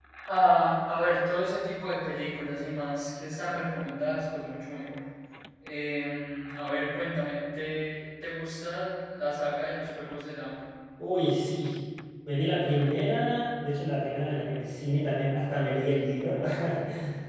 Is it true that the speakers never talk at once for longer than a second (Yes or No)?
Yes